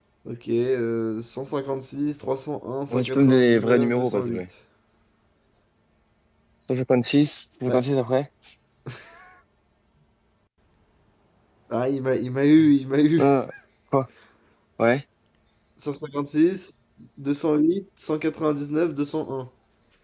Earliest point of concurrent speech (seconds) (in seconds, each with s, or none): 2.9 s